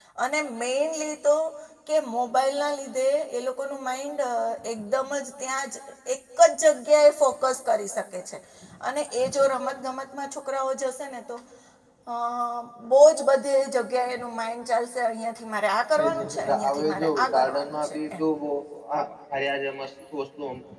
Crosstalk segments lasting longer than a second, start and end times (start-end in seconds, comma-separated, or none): 16.0-18.2